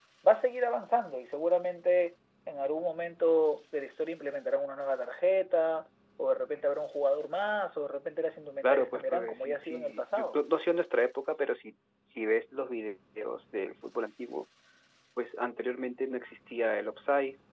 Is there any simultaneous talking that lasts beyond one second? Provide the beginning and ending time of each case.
8.6-10.4

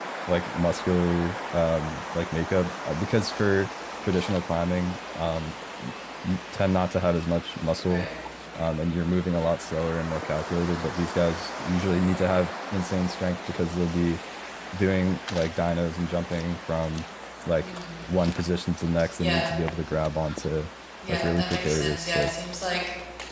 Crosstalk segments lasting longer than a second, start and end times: 21.1-22.3

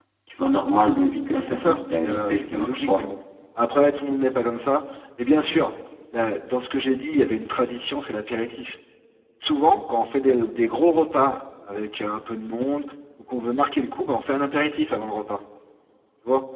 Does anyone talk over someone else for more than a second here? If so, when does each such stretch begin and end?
1.4-3.0

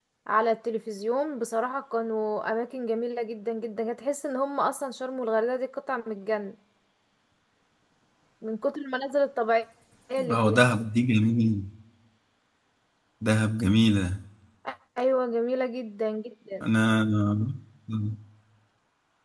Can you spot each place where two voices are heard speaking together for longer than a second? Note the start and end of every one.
none

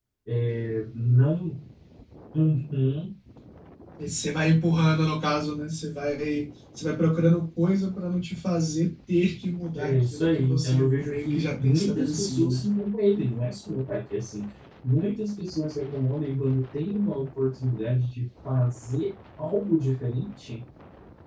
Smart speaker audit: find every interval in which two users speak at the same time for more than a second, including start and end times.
9.8-12.6

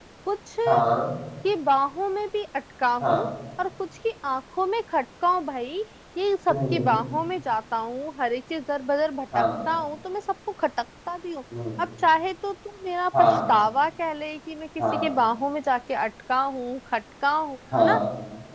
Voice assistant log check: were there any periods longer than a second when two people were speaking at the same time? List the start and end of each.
none

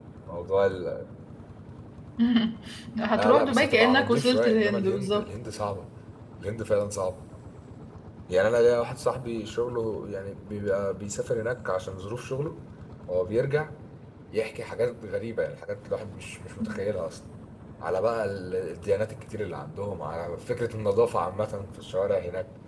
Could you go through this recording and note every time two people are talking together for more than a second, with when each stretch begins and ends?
3.1-5.3

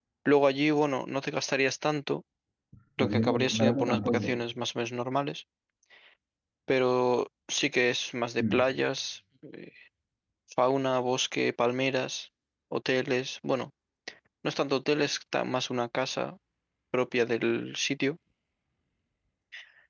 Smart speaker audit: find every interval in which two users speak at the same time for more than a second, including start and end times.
3.0-4.4

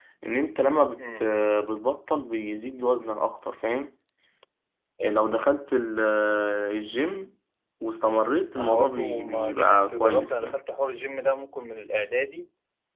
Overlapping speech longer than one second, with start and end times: 8.6-10.6

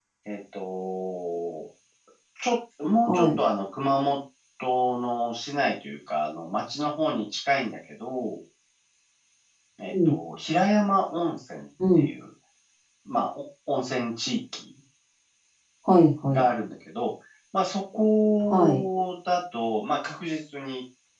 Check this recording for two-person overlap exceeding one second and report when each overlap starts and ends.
none

